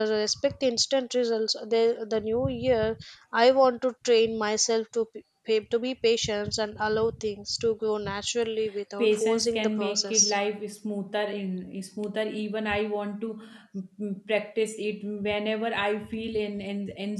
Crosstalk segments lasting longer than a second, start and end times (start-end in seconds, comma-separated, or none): 9.0-10.3